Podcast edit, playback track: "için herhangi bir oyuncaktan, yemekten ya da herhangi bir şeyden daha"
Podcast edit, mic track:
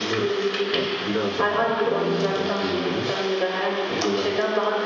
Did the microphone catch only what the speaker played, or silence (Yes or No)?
No